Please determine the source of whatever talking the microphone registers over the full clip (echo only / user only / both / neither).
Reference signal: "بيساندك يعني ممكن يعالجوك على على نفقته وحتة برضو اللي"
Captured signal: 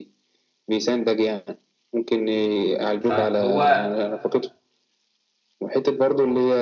both